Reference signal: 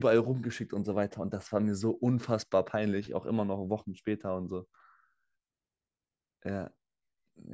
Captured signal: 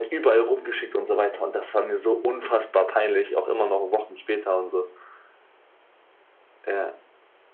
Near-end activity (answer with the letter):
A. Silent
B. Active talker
A